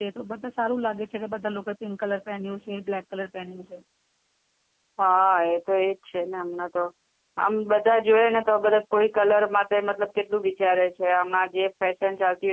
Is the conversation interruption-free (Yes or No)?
Yes